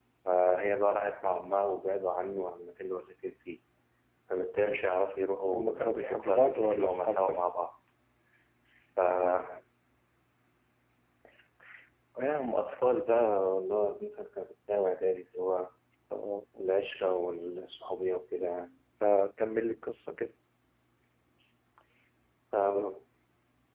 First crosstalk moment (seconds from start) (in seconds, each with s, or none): 5.5 s